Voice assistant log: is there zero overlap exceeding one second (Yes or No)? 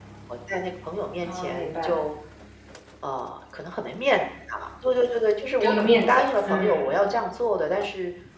No